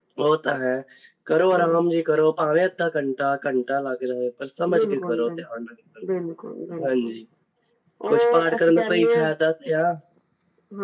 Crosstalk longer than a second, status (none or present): present